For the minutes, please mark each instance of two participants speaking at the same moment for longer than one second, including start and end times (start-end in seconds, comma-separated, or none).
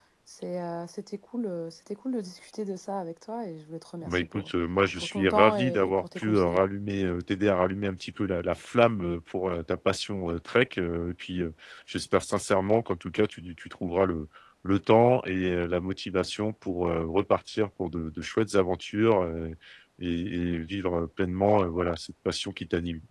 5.0-6.6